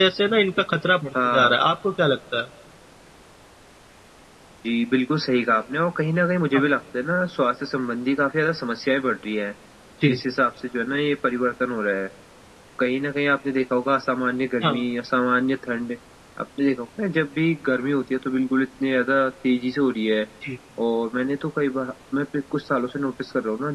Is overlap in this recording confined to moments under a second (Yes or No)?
Yes